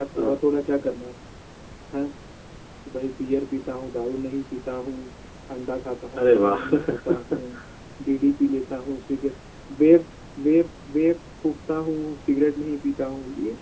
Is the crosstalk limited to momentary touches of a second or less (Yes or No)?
No